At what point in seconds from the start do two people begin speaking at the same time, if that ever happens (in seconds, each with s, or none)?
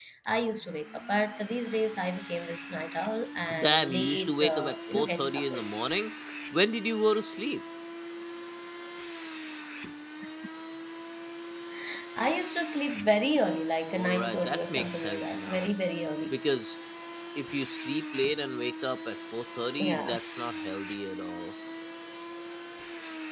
3.6 s